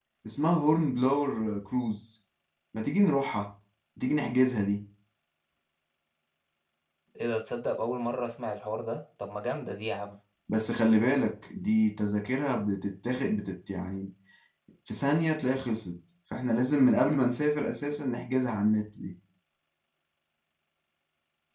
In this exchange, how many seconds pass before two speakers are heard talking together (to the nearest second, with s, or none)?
none